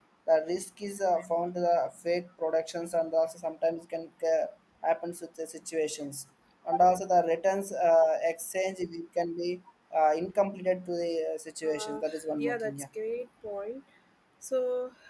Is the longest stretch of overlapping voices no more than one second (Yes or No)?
Yes